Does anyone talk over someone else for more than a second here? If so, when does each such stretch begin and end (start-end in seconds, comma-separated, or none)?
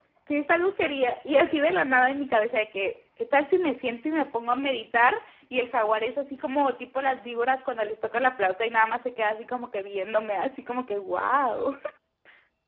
none